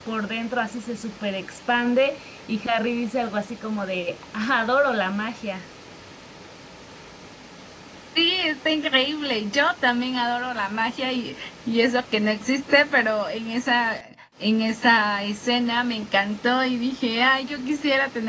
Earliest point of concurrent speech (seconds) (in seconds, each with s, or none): none